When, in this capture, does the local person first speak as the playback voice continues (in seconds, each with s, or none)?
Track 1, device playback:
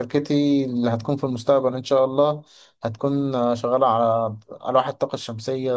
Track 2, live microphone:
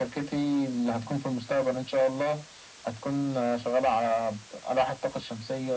none